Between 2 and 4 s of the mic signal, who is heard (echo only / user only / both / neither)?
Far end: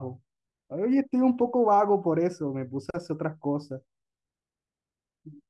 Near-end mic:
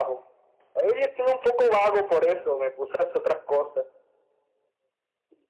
echo only